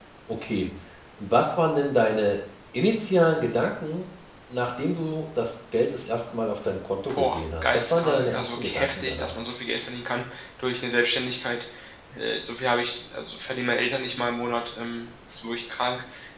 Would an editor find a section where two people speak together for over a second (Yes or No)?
Yes